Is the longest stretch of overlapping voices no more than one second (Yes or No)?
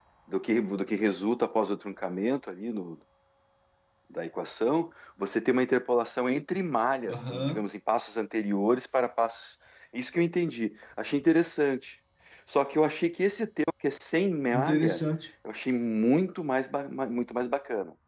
Yes